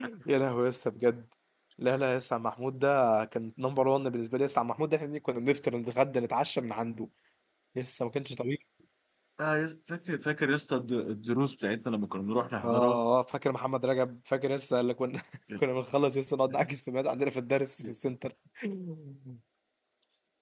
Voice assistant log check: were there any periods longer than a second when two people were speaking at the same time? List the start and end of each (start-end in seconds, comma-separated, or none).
none